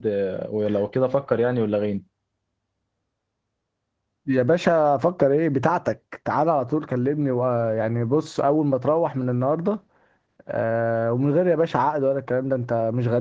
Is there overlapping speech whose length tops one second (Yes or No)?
No